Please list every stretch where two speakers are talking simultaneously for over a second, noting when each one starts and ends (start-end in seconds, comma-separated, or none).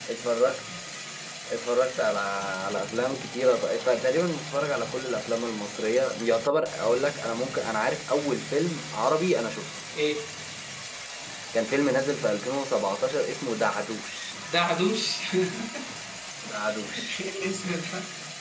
none